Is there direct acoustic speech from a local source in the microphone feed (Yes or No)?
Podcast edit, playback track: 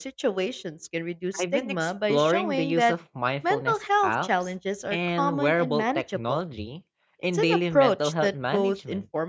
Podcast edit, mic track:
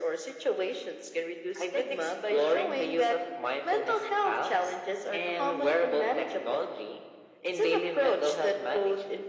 No